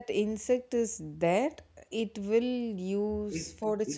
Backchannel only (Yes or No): No